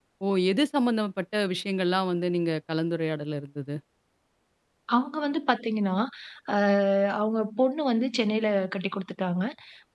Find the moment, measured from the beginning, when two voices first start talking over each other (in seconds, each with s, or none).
none